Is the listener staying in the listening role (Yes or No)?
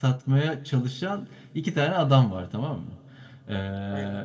Yes